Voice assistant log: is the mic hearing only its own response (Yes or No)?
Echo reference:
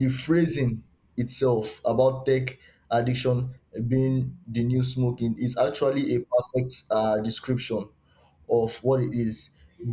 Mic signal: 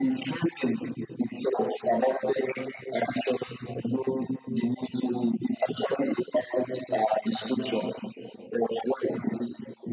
Yes